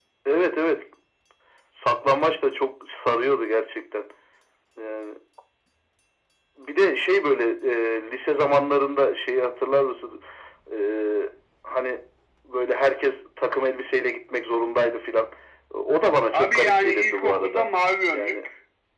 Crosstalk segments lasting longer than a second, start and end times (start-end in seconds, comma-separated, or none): 16.3-17.7